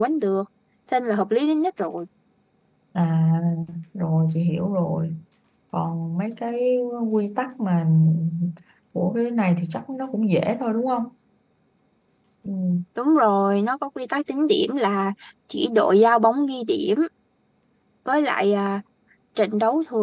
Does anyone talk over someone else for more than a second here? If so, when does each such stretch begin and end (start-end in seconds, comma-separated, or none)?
none